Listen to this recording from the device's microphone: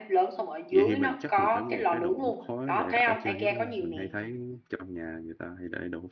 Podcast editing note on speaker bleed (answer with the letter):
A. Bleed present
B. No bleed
A